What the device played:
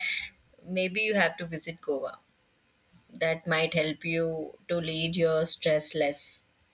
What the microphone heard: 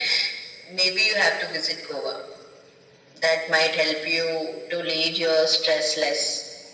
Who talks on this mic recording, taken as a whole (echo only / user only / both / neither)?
echo only